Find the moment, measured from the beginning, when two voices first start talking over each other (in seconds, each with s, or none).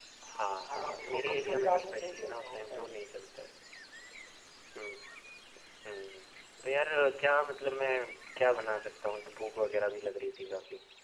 0.7 s